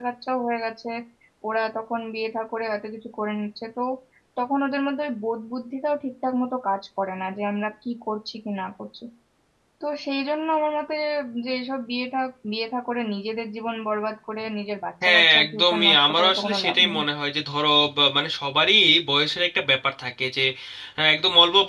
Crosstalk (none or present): present